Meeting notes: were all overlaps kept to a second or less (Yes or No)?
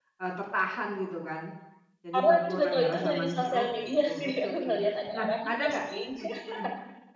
No